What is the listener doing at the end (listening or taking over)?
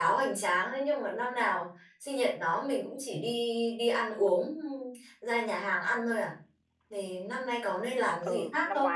taking over